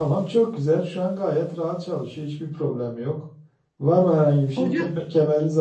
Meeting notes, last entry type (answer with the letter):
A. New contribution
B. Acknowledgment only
B